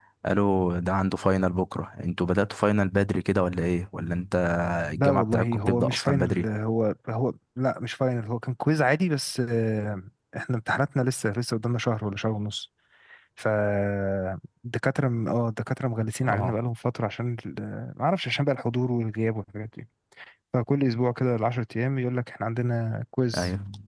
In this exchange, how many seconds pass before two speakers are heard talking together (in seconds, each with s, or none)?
4.9 s